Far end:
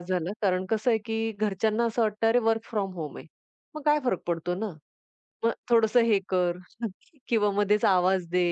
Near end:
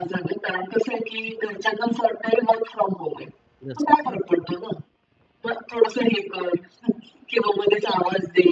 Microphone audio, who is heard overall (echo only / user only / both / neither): both